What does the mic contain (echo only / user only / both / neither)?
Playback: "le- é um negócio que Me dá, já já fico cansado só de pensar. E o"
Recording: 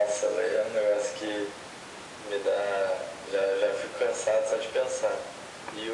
echo only